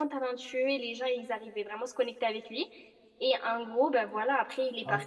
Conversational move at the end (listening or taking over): taking over